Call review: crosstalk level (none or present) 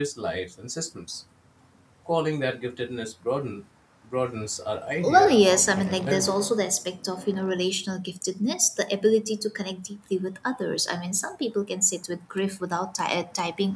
present